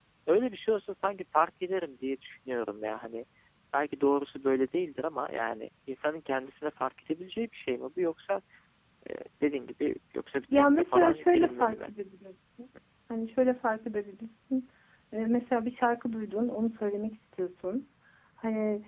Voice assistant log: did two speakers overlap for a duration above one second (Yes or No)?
Yes